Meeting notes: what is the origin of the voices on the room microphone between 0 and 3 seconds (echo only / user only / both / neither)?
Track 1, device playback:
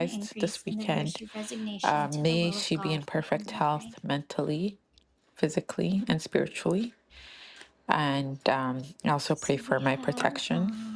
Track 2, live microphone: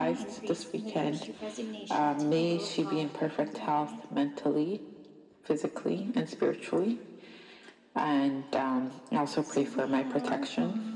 echo only